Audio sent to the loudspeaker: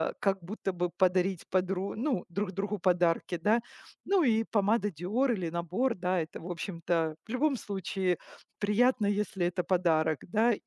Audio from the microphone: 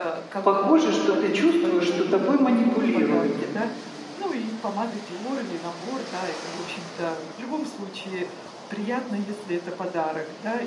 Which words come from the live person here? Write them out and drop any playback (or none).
похоже, что ты чувствуешь, что тобой манипулируют.